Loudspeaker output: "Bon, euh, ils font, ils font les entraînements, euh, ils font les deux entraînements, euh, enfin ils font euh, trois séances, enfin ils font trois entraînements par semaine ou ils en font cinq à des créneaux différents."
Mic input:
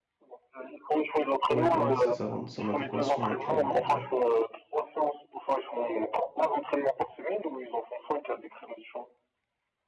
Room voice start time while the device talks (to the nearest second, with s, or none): 2 s